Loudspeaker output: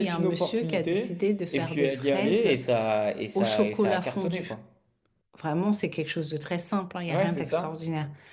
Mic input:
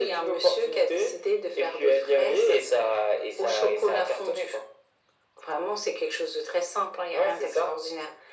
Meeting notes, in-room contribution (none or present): none